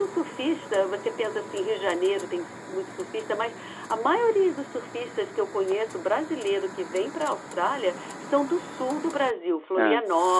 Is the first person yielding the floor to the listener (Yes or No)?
No